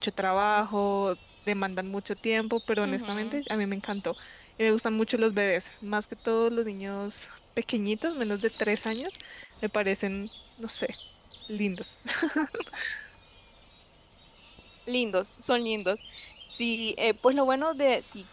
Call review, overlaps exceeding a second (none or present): none